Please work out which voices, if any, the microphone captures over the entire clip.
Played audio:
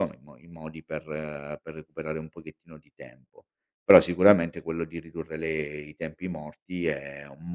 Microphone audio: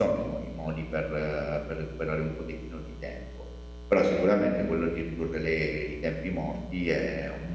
echo only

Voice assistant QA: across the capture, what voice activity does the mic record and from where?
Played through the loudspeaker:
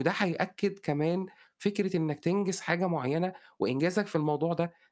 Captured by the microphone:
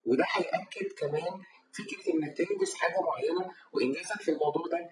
echo only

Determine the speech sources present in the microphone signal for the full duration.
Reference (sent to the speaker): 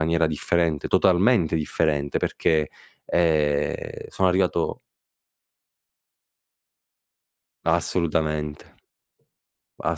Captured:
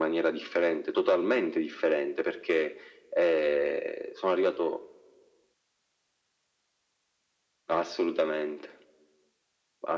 echo only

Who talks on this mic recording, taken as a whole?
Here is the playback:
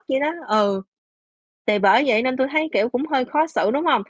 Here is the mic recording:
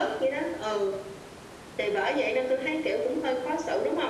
echo only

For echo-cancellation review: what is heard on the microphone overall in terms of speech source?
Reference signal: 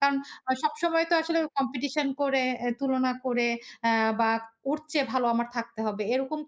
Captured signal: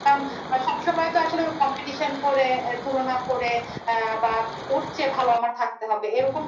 echo only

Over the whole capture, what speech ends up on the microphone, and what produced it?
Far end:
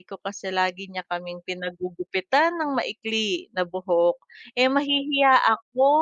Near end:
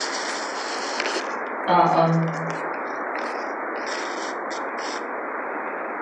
user only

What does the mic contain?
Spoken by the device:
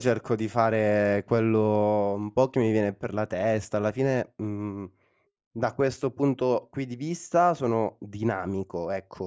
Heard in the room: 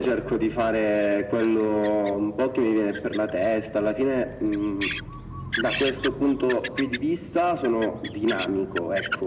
echo only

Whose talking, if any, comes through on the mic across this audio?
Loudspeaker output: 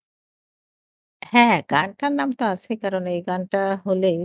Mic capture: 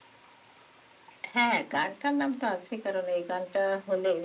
echo only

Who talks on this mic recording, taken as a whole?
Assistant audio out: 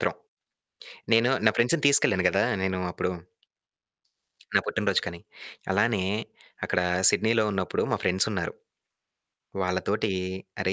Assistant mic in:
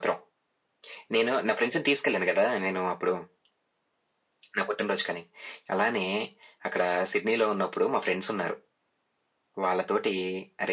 echo only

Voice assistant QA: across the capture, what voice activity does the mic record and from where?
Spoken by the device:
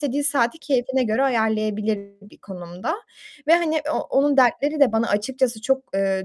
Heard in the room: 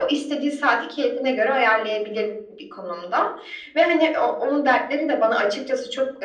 echo only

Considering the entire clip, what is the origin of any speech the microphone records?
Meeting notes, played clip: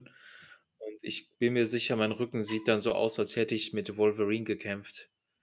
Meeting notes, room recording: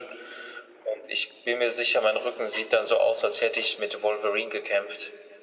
echo only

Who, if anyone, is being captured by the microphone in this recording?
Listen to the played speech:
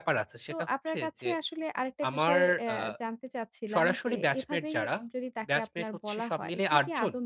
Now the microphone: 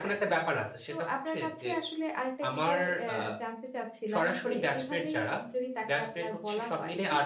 echo only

